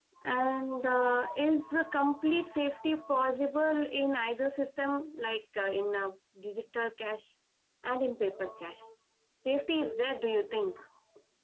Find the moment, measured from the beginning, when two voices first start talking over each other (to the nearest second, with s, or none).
none